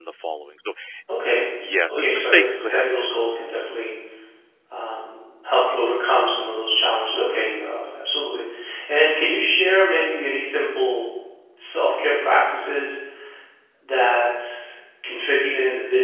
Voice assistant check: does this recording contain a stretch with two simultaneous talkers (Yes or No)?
Yes